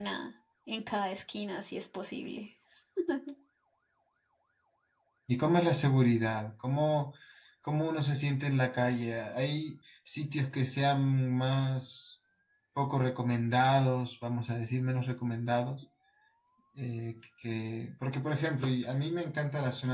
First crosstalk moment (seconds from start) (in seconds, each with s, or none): none